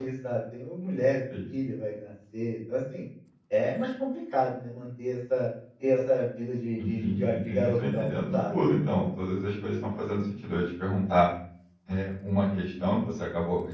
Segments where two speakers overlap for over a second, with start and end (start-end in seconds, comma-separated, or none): 6.8-8.7